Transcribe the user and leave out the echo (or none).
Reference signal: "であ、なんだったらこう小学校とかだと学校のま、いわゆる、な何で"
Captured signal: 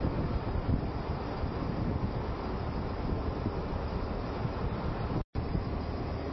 none